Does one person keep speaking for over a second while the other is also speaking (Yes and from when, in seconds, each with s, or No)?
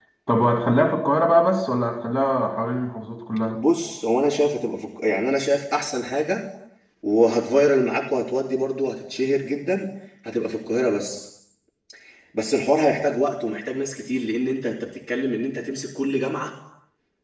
No